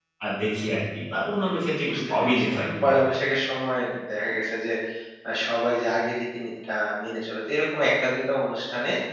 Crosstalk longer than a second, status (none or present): present